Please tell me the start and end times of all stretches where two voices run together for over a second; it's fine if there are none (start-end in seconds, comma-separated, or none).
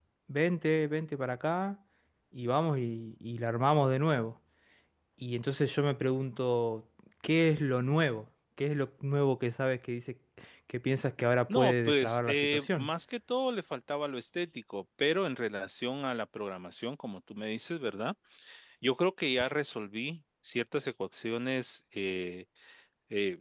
11.5-12.9